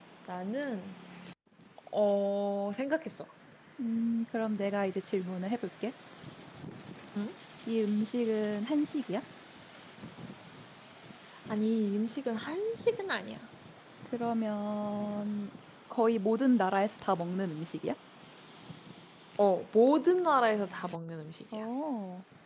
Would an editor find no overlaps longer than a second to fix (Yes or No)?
Yes